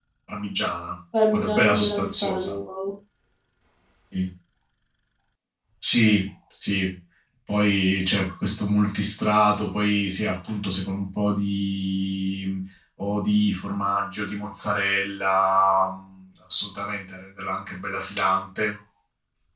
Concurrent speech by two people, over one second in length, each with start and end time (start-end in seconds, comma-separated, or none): 1.3-2.5